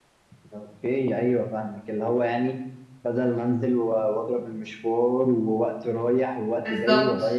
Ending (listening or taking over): listening